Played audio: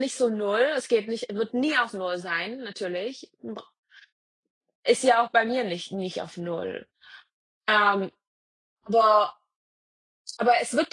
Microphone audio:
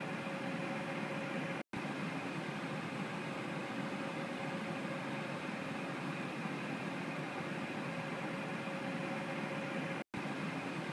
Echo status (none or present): none